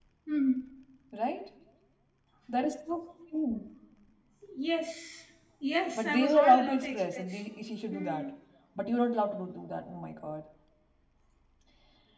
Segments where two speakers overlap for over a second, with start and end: 6.0-7.4

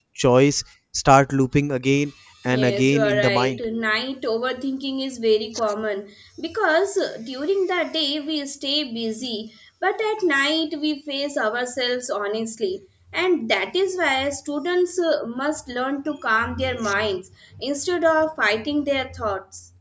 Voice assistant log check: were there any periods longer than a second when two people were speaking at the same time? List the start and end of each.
2.5-3.7

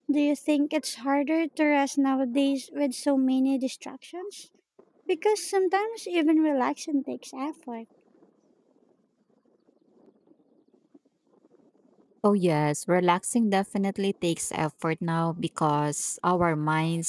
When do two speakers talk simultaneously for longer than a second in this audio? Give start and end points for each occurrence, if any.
none

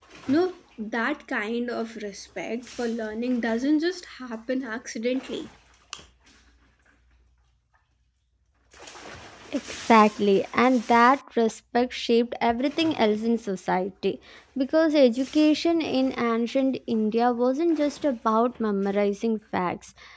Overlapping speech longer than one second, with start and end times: none

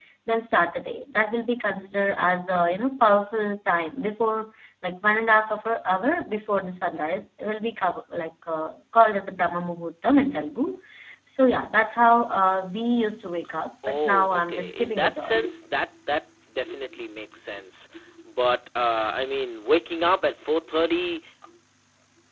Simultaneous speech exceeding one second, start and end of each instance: 13.9-15.4

